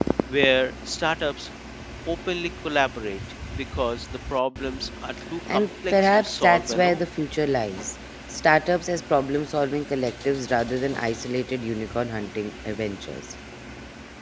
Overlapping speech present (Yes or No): Yes